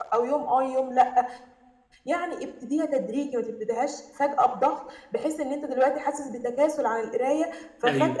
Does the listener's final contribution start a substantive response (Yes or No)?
No